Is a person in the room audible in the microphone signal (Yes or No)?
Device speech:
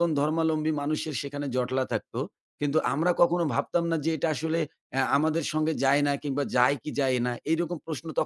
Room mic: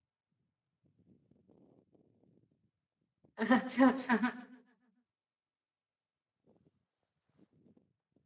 Yes